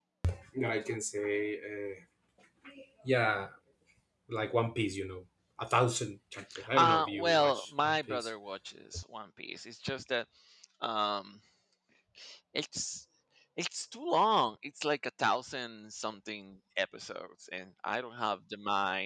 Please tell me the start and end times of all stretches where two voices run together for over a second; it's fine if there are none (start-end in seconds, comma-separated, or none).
6.7-8.3